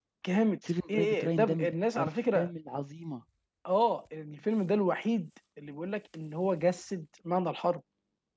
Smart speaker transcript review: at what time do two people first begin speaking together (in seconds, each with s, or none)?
0.9 s